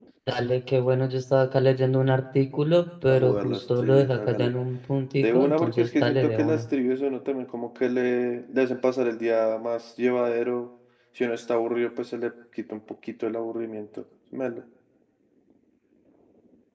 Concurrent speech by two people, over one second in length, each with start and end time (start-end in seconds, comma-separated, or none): 3.1-4.5, 5.2-6.6